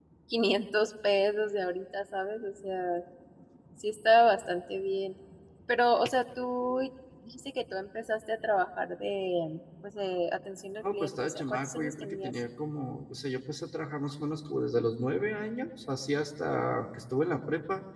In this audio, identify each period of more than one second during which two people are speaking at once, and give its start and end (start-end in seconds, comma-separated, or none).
10.9-12.3